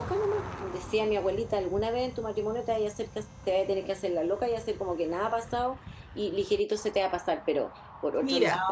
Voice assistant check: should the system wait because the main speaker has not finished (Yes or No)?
Yes